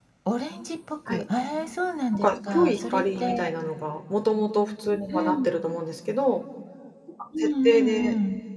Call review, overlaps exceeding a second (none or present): present